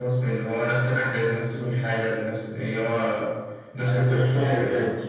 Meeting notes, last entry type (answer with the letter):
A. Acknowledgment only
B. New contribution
B